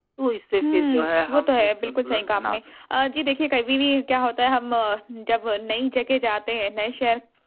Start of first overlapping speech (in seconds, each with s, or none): 0.6 s